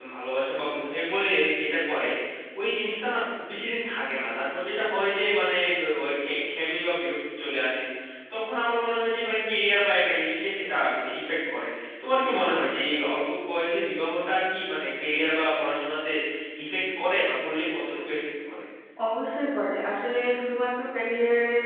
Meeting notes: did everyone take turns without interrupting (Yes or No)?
Yes